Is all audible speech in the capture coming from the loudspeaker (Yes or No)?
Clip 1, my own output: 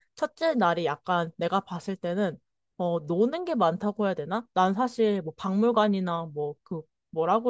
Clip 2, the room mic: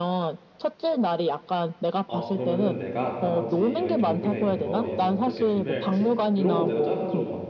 No